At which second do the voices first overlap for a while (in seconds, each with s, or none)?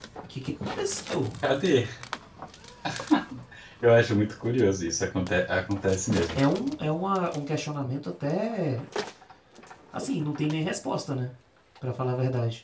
none